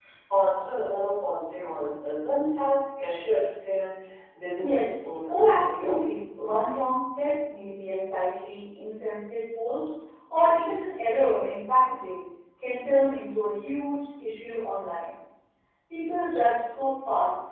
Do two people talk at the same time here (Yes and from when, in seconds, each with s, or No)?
Yes, from 4.6 s